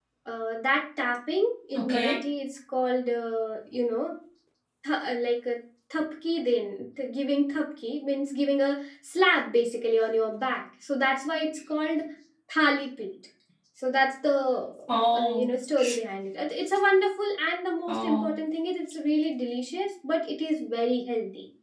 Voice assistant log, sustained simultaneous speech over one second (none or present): none